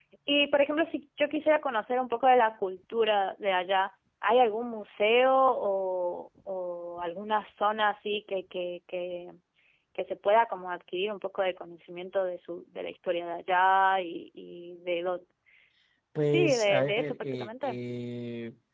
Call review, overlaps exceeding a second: present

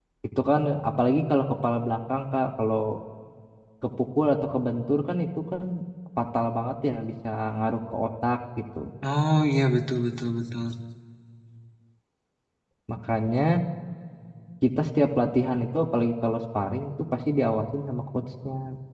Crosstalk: none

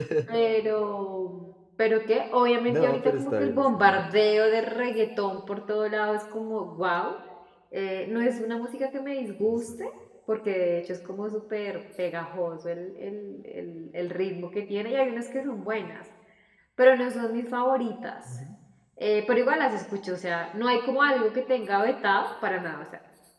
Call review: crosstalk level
present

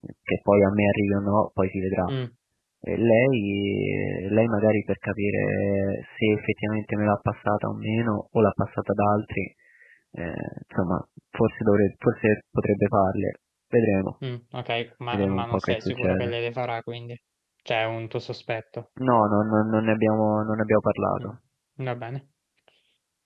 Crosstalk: present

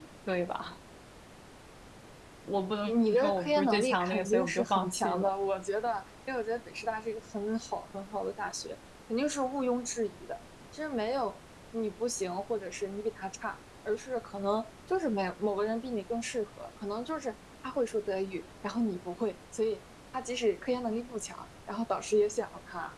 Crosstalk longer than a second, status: present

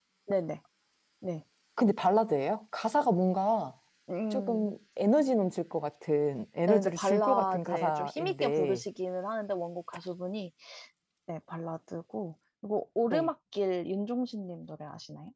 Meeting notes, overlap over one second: present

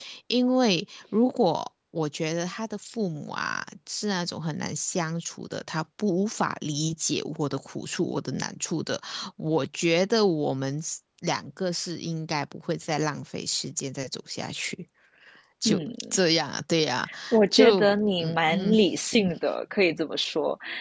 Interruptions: present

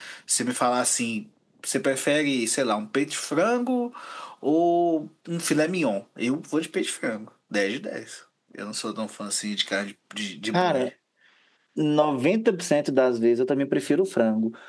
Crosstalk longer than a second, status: none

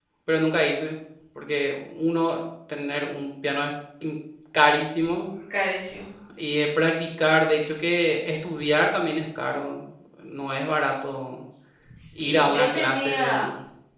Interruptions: present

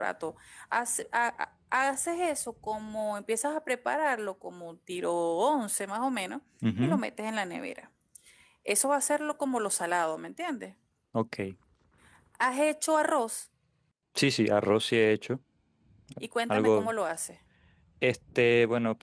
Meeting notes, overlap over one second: none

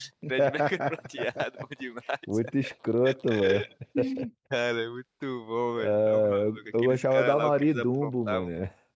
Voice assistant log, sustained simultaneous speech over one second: present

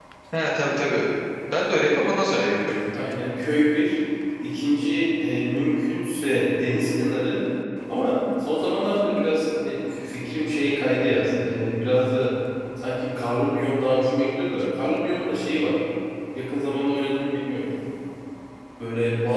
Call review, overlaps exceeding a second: none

